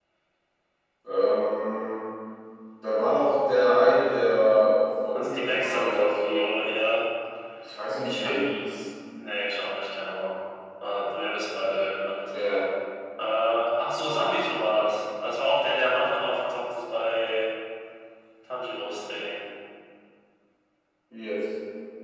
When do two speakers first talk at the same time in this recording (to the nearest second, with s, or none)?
5 s